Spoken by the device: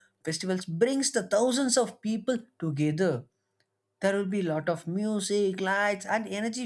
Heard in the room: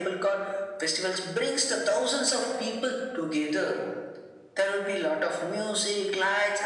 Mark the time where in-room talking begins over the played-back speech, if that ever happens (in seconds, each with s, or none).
none